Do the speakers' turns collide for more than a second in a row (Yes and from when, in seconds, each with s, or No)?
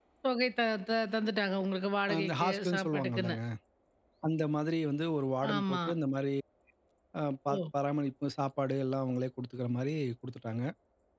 Yes, from 2.2 s